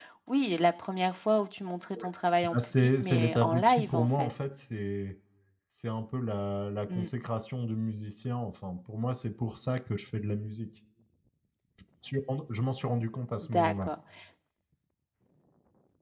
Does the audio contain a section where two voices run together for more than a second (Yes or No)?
Yes